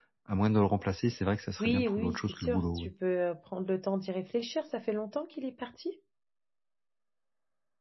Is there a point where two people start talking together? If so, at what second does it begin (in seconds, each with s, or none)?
1.6 s